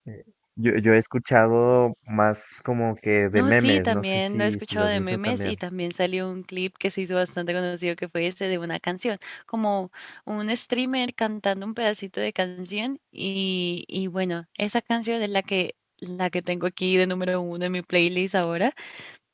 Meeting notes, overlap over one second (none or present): present